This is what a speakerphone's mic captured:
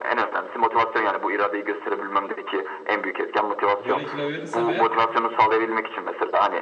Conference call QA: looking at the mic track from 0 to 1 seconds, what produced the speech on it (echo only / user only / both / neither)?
echo only